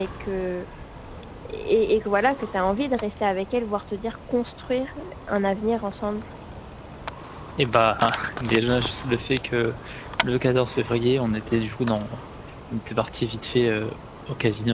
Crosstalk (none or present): none